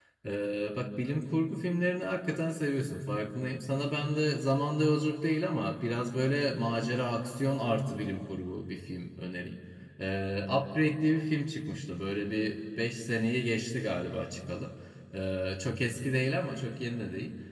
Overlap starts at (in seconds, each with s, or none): none